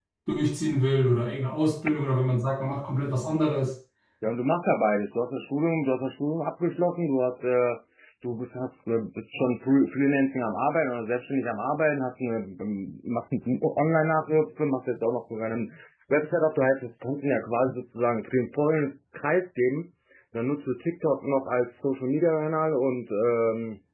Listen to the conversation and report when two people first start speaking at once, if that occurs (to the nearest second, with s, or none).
none